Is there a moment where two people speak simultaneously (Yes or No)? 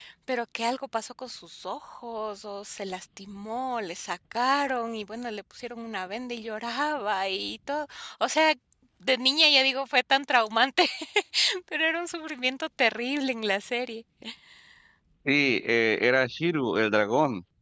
No